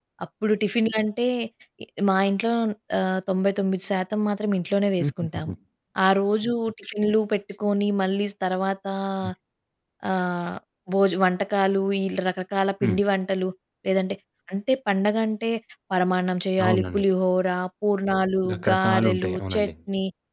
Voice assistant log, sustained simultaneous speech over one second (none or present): present